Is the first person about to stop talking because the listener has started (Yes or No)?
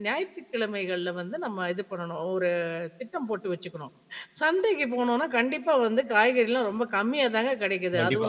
Yes